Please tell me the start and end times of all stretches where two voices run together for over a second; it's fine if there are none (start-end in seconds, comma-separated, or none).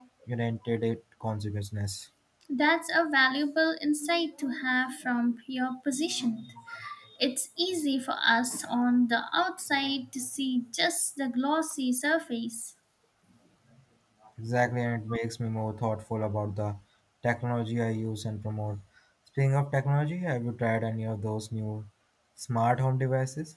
none